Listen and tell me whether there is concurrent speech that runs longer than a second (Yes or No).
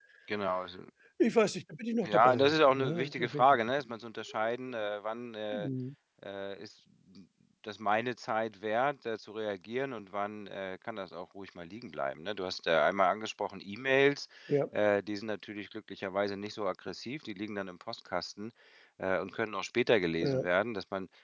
Yes